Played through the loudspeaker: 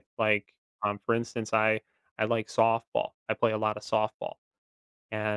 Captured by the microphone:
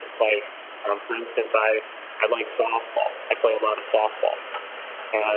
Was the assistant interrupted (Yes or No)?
No